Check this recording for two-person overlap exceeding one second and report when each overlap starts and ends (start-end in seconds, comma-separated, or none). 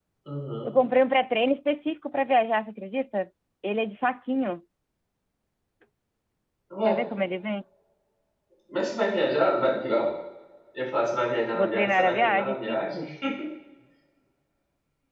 11.5-13.0